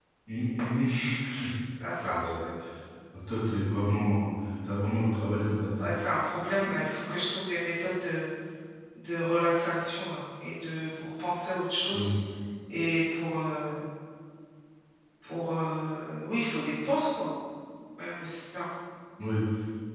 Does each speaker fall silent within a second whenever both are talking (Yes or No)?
Yes